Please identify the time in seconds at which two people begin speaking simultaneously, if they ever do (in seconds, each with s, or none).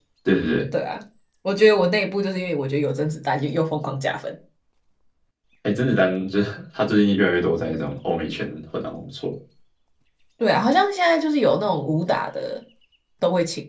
none